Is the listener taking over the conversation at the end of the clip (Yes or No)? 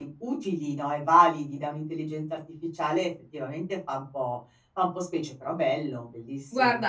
Yes